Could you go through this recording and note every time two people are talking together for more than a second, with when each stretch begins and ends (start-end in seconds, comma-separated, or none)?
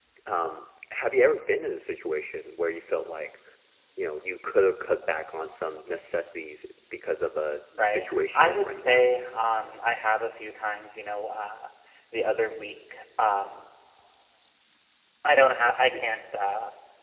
7.8-9.1